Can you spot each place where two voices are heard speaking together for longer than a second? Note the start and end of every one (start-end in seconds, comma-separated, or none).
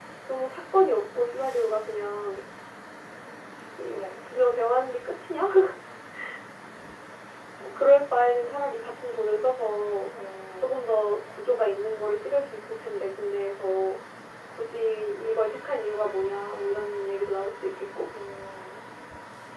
none